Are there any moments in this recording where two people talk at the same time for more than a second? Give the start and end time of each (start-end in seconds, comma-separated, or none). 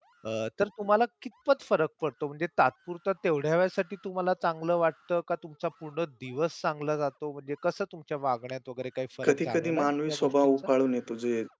9.2-10.5